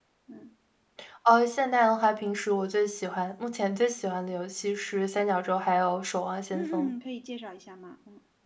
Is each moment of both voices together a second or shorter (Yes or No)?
Yes